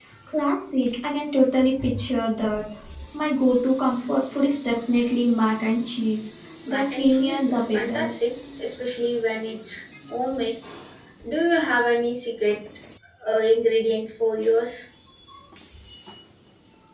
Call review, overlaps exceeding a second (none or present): present